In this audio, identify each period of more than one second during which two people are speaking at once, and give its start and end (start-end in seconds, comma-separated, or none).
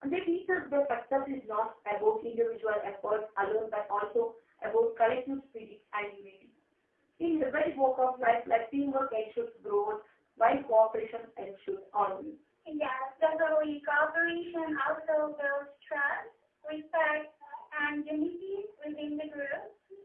none